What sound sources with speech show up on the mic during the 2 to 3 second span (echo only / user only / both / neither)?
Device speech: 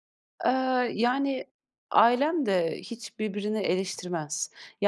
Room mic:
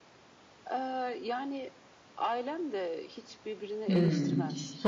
echo only